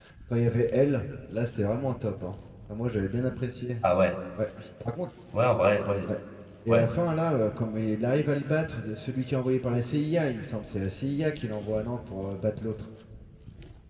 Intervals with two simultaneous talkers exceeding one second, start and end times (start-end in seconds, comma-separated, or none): none